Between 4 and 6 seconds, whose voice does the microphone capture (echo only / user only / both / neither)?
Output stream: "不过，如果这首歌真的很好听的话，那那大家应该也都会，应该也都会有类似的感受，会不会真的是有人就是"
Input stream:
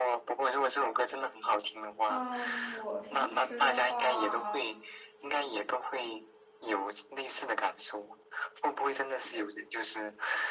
both